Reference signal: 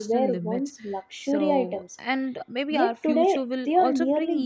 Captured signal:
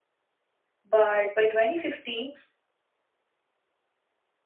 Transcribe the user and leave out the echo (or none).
but by 2050